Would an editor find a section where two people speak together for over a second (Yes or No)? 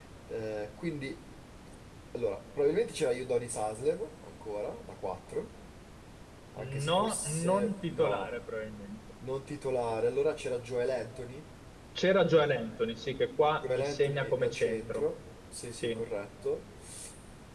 Yes